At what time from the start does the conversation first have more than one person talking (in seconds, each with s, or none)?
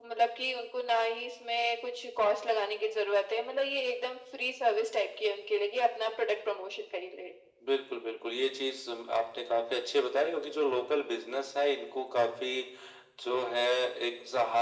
none